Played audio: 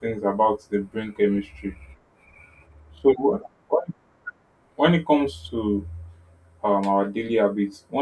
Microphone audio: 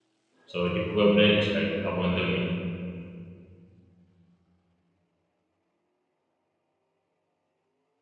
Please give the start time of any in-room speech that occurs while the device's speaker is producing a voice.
0 s

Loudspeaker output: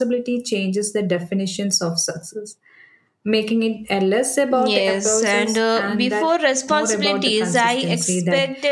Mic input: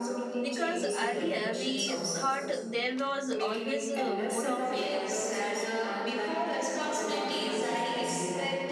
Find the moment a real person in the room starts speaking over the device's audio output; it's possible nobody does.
0 s

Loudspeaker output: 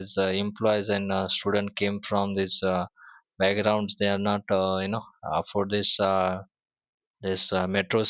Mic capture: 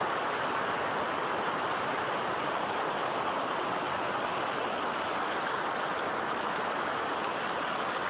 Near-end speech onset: none

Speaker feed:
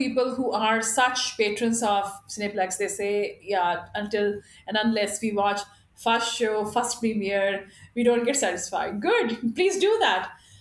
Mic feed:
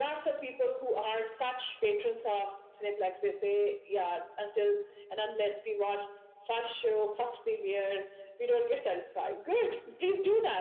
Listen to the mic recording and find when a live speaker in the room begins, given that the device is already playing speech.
none

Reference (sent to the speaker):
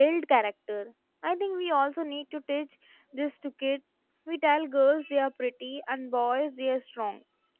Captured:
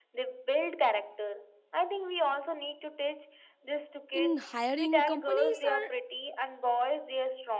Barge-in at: 4 s

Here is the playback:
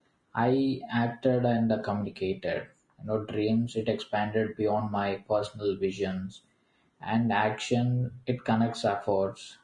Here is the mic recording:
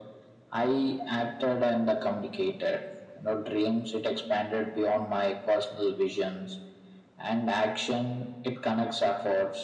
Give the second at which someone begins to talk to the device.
none

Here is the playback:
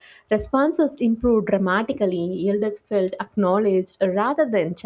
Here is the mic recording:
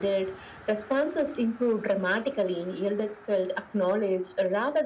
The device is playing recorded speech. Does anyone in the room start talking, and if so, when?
none

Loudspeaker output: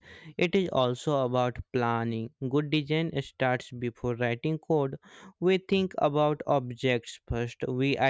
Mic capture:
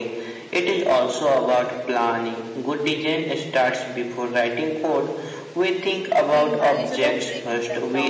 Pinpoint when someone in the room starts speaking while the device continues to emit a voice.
6 s

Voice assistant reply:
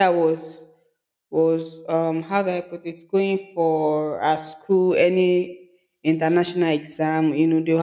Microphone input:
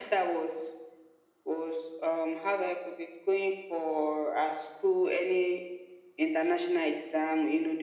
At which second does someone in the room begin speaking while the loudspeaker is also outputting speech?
none

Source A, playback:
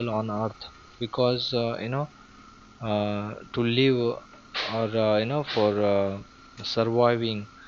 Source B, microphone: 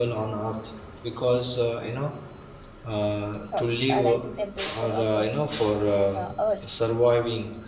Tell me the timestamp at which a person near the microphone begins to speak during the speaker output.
3 s

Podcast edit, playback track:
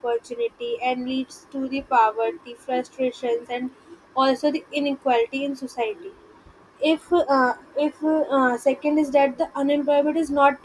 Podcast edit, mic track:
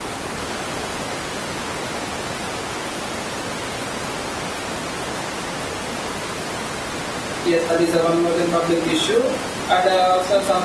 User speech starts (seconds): 7 s

